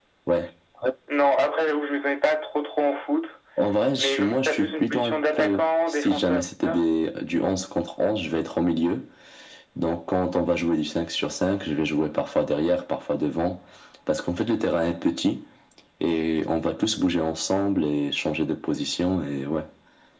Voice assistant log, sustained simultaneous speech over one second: present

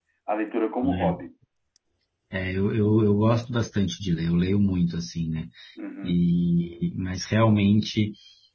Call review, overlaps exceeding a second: none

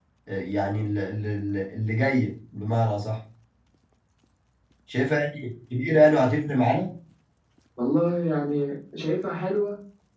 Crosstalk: none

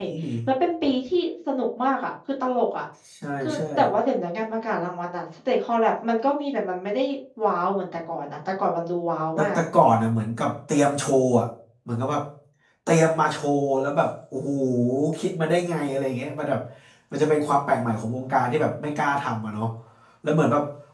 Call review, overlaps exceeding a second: none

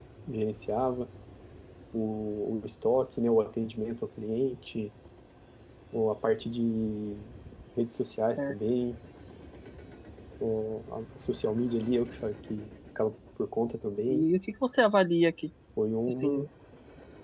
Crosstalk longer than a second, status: none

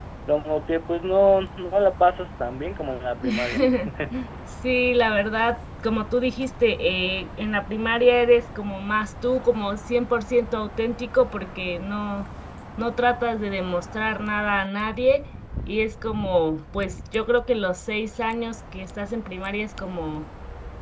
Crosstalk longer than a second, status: none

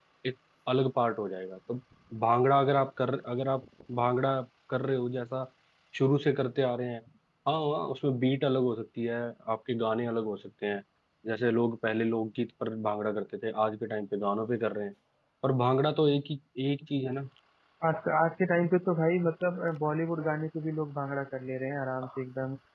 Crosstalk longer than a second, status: none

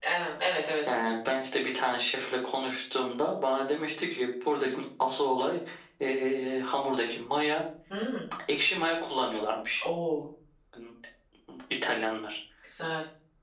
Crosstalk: none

